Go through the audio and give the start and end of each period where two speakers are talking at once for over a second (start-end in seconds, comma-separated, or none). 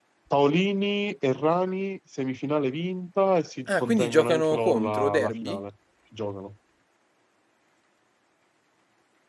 3.7-5.6